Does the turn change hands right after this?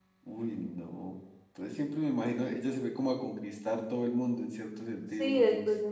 Yes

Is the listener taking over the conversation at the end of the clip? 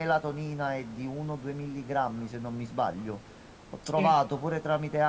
No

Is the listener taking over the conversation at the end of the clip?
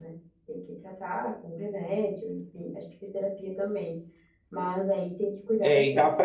Yes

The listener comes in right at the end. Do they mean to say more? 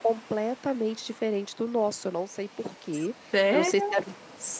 No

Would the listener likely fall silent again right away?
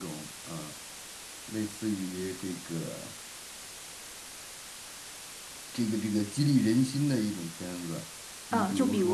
No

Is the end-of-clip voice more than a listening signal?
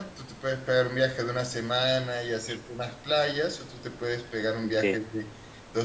No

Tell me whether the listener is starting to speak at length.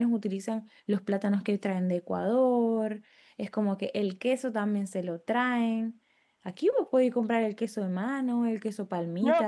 Yes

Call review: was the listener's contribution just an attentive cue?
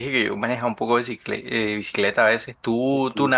No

